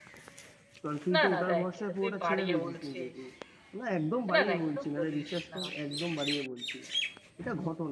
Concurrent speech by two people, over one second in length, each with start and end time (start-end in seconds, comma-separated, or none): 1.1-3.1, 4.3-5.6